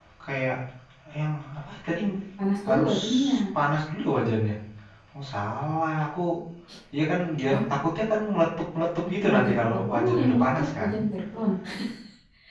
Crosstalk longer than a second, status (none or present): present